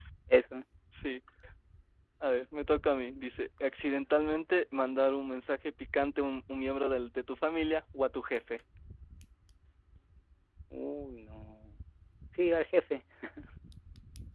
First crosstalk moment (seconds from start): none

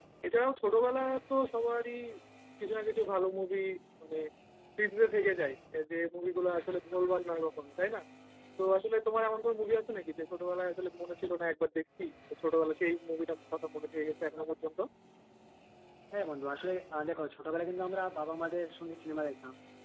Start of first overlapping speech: none

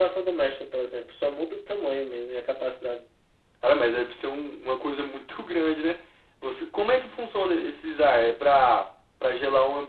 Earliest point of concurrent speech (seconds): none

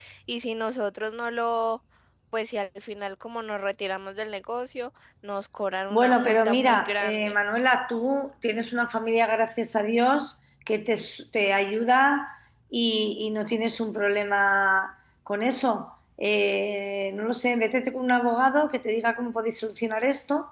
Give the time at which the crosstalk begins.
6 s

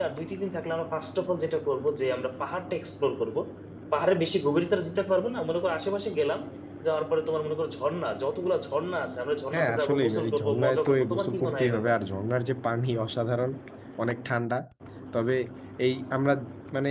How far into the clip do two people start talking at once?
10 s

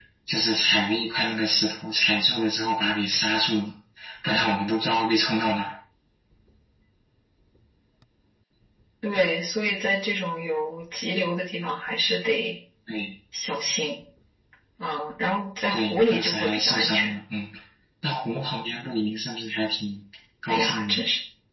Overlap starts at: 16 s

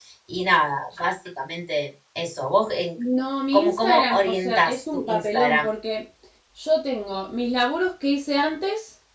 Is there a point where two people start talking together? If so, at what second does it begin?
4 s

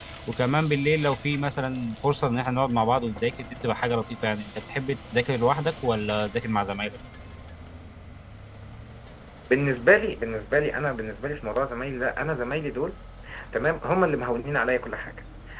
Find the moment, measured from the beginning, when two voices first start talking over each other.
none

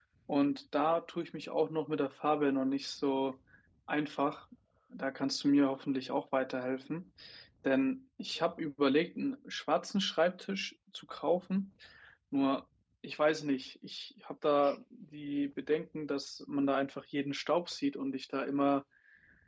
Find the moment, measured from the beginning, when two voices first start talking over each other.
none

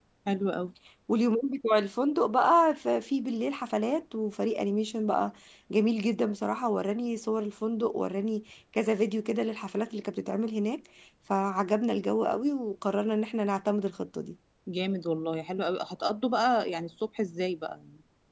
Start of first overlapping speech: none

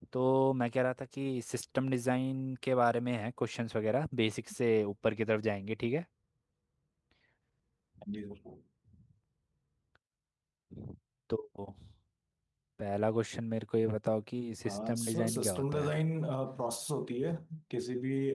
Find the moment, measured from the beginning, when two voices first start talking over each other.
15 s

